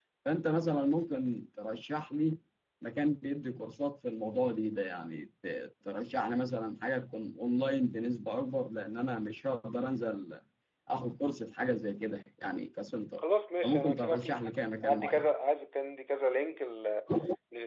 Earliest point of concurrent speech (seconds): 13.6 s

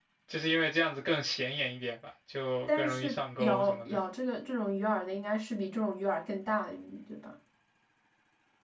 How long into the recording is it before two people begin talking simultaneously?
2.7 s

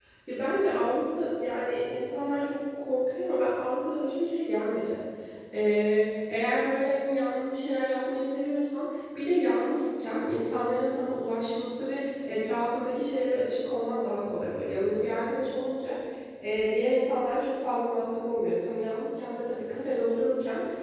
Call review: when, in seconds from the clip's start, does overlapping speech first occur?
none

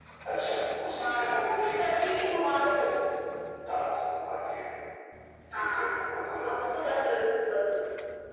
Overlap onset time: 0.9 s

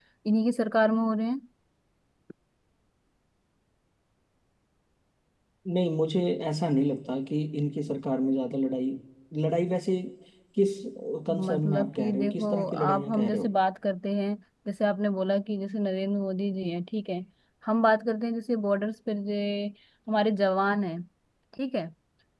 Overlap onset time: 11.5 s

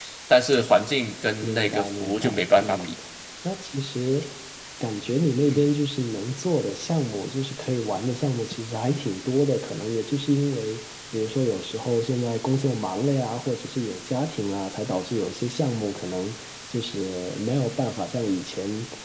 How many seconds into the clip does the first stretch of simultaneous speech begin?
1.4 s

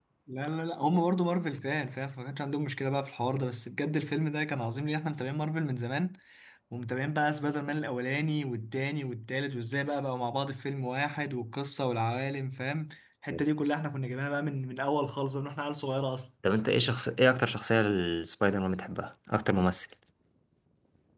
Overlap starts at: none

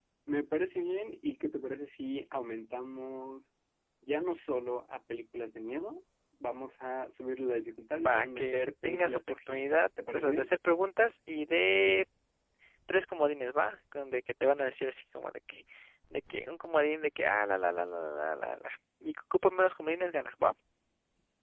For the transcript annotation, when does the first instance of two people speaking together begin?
7.9 s

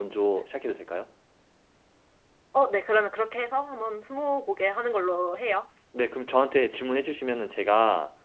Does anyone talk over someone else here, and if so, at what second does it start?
none

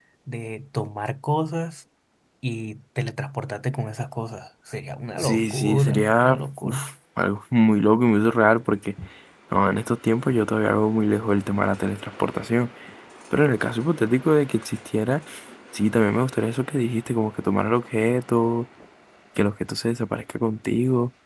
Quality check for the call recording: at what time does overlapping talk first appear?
5.2 s

